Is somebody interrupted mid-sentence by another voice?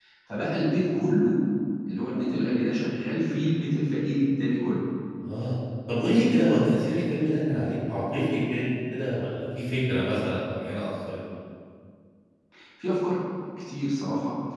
No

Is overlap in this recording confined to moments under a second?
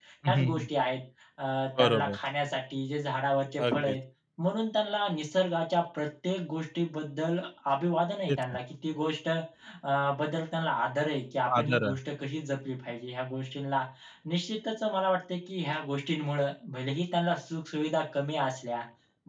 Yes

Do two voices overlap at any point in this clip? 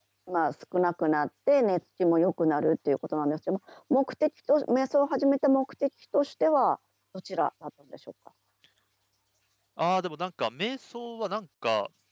No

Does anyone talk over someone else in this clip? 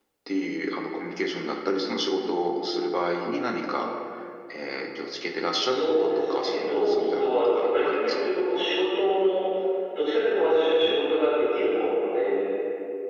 Yes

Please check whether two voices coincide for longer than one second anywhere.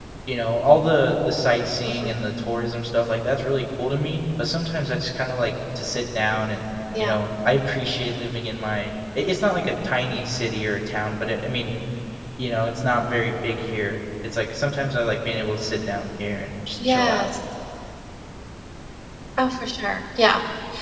No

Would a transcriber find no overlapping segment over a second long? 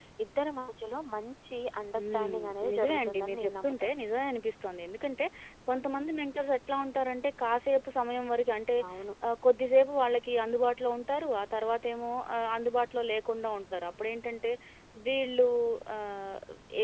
No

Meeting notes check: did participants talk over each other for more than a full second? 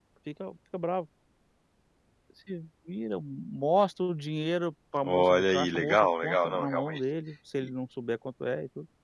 Yes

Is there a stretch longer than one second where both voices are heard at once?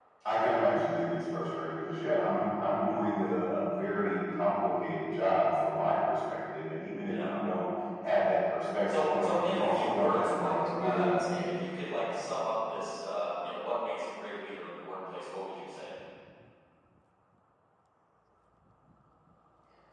Yes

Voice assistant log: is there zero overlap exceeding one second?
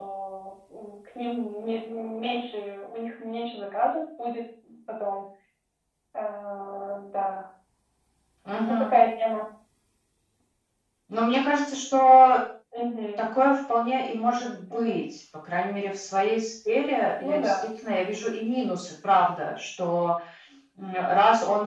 Yes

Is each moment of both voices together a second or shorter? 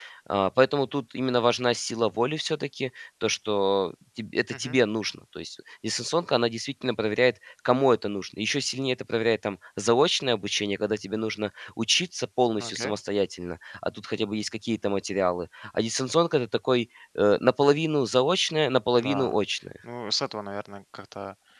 Yes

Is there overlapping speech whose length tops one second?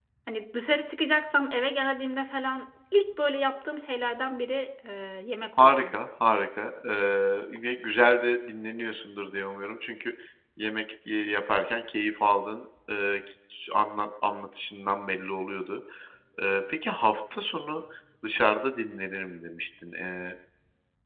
No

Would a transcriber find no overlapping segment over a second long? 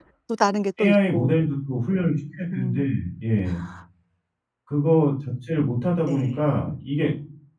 Yes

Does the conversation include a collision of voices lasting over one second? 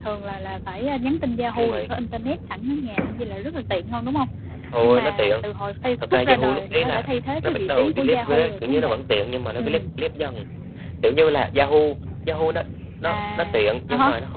Yes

